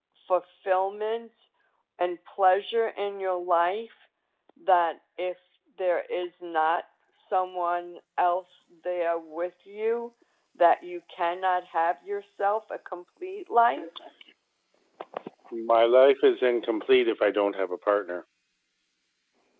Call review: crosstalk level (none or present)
none